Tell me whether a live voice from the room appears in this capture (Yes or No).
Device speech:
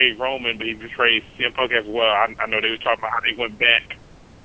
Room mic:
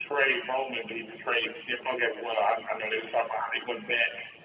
No